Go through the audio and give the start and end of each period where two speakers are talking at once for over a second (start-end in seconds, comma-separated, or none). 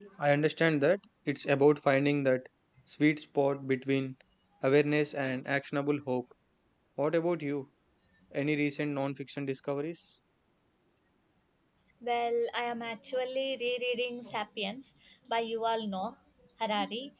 none